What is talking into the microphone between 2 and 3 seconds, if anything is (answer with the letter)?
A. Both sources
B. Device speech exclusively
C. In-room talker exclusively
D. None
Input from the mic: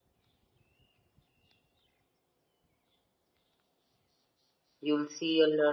D